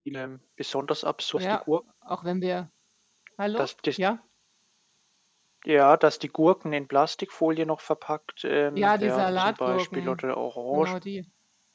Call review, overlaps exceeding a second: present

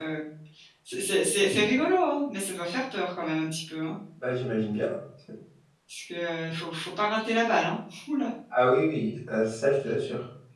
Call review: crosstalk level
none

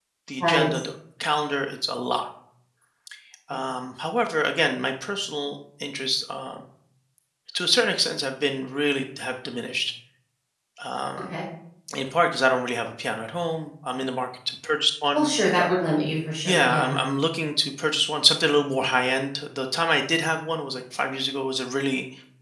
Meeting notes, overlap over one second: none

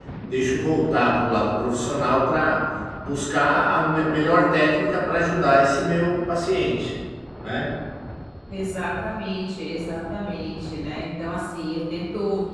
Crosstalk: none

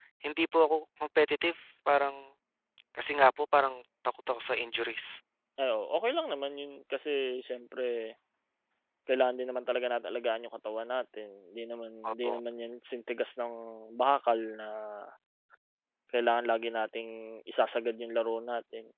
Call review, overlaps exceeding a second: none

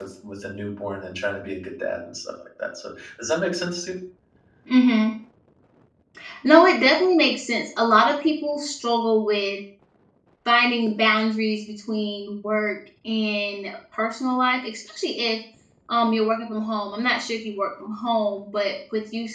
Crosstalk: none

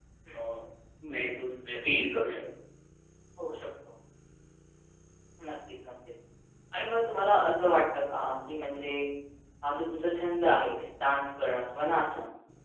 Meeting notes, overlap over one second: none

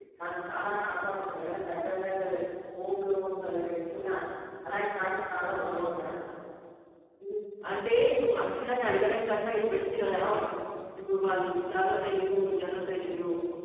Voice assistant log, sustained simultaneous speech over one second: none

